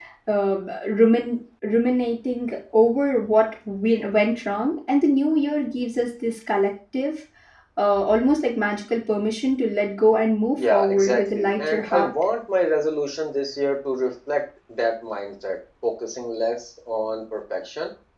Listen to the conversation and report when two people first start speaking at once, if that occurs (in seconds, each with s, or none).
10.6 s